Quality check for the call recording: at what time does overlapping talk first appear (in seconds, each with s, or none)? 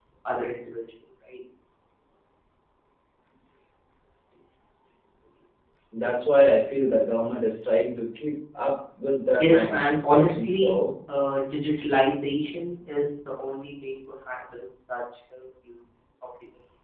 9.4 s